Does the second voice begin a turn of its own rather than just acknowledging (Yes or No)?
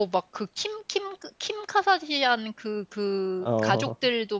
No